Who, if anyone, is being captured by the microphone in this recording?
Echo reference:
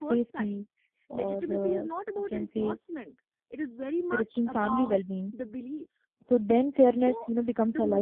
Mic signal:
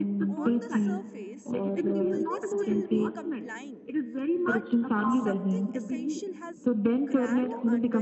both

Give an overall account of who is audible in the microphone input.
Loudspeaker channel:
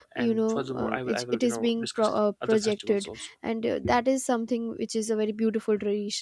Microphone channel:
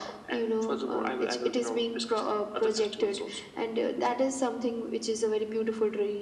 echo only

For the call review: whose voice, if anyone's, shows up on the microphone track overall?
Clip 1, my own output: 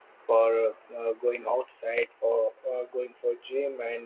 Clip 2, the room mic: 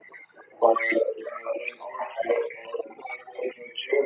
echo only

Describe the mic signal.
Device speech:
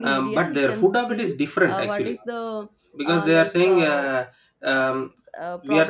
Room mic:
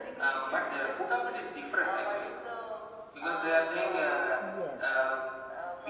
both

